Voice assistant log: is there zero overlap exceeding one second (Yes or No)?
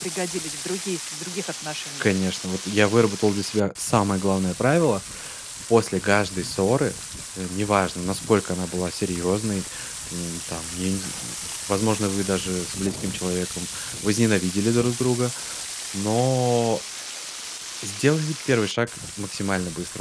Yes